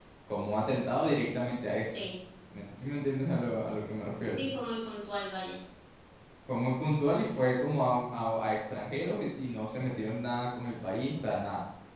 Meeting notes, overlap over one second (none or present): none